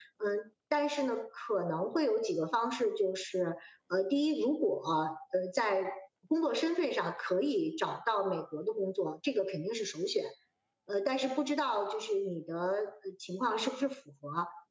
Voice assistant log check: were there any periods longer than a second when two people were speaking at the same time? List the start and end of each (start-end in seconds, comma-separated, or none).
none